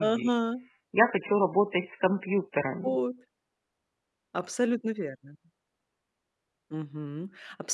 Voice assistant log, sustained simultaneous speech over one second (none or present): none